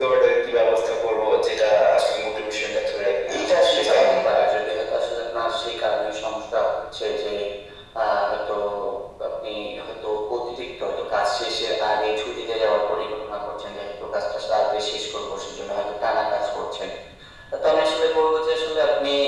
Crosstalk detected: Yes, from 3.2 s

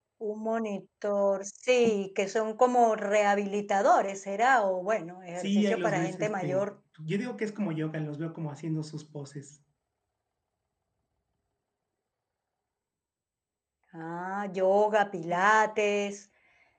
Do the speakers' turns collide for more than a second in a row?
Yes, from 5.4 s

